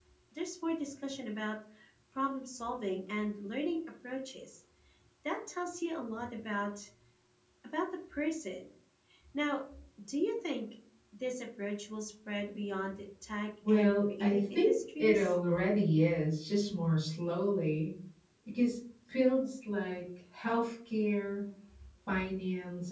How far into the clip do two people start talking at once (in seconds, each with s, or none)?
13.6 s